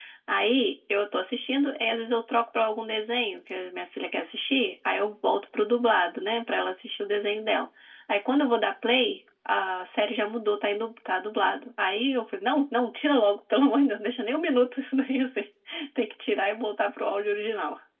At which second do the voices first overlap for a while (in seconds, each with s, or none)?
none